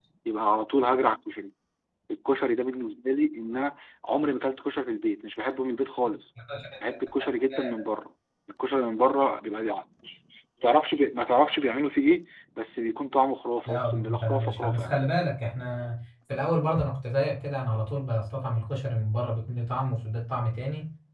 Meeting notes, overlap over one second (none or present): present